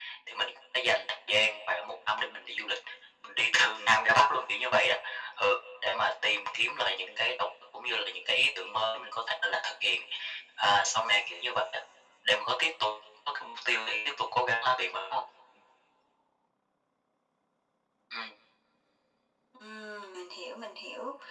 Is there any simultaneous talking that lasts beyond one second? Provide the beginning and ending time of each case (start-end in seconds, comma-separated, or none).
none